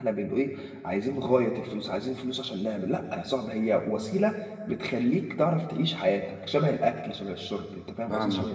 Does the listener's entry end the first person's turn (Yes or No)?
Yes